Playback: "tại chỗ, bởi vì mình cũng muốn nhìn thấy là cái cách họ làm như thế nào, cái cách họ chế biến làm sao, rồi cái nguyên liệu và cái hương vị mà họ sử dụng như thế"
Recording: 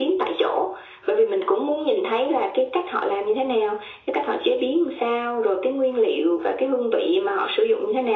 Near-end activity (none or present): none